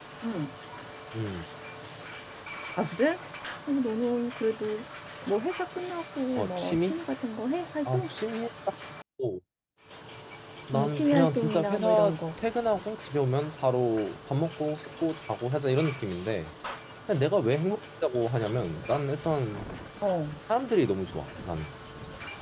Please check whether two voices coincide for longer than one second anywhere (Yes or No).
Yes